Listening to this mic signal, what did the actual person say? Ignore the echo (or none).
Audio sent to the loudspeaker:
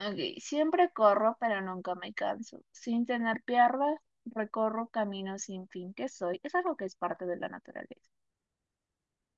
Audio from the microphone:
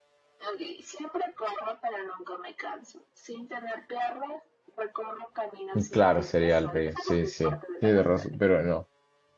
Y claro, sería el río. Sí, sí. Tienes razón, pero no.